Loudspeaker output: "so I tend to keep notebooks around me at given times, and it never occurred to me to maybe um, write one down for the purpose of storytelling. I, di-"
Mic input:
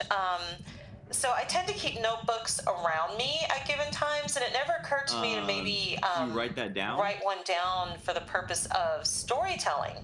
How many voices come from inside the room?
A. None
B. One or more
B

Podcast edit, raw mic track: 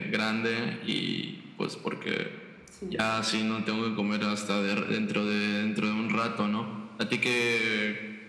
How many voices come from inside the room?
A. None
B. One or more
B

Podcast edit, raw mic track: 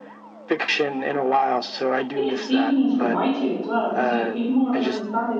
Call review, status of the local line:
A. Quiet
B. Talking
B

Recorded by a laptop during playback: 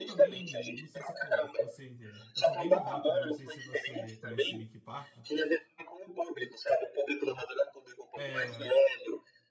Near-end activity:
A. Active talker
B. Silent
A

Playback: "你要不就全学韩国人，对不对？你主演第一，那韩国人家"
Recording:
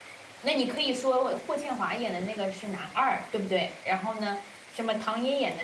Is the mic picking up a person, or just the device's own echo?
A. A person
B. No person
A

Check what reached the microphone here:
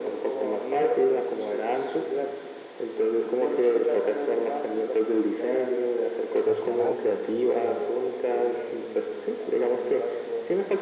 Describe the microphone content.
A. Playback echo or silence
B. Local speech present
B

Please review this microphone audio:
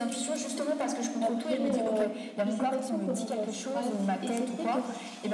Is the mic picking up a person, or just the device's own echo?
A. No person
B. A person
B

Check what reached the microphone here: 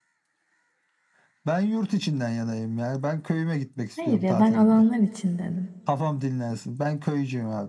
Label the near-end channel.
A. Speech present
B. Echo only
A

